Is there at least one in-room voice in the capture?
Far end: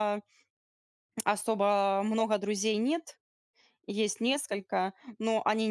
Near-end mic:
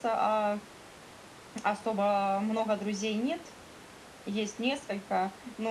No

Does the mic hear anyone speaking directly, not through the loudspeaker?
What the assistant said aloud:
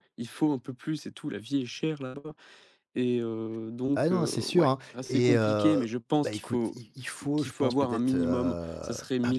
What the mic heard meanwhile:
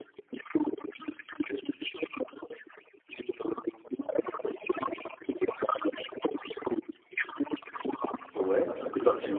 Yes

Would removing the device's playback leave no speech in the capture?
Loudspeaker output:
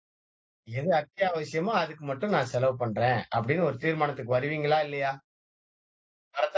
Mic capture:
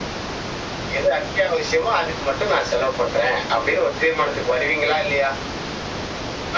Yes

